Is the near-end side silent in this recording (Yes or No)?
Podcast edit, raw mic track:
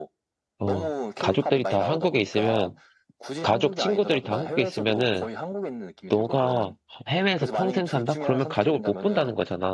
No